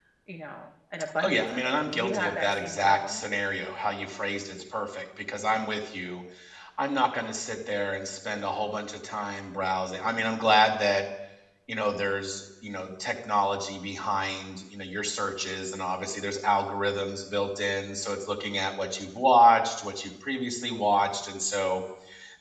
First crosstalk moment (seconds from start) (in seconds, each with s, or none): 1.2 s